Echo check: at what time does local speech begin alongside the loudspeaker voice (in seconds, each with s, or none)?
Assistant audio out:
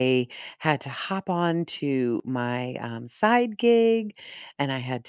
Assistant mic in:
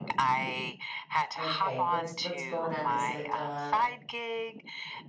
1.4 s